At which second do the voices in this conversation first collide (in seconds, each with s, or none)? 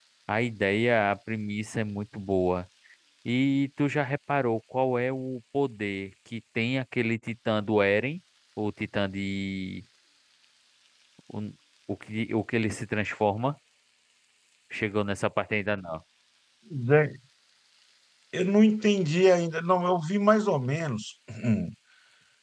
none